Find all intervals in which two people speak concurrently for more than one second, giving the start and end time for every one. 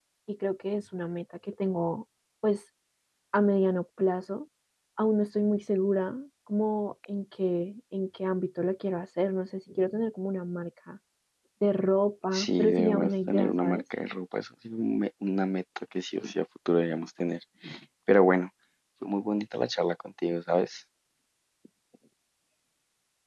12.3-13.8

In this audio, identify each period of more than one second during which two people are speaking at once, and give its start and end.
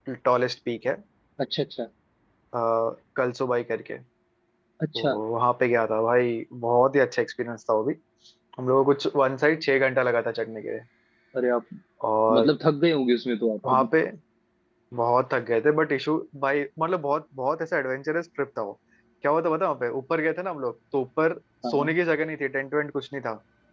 none

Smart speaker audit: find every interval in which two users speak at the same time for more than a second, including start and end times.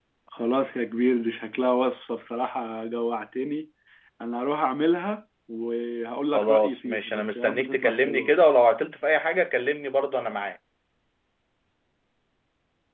6.3-8.6

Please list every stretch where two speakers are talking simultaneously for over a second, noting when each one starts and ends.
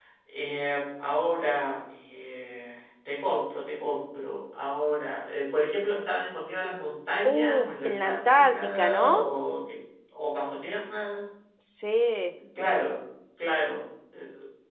7.2-9.3

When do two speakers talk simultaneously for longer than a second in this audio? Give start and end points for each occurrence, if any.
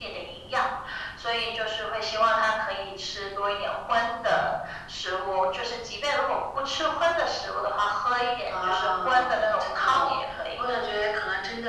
8.5-10.1

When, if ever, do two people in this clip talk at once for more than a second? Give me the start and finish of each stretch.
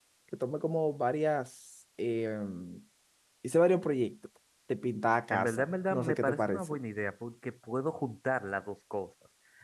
5.3-6.8

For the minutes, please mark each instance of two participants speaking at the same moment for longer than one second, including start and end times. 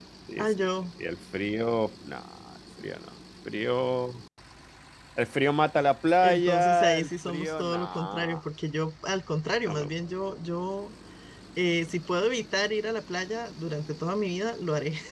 6.2-8.4

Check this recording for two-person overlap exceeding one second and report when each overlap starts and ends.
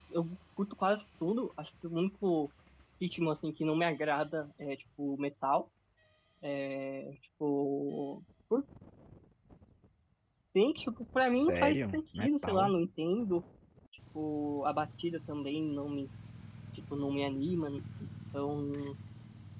11.2-12.7

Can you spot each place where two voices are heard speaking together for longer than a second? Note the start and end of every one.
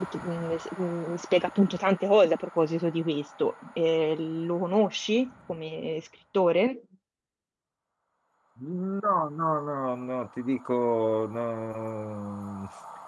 none

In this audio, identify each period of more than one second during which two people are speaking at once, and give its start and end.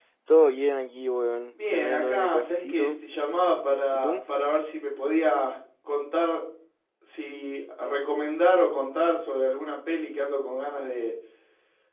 1.5-2.9

